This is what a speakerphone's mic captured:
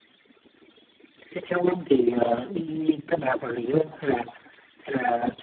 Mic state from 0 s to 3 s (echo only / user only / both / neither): echo only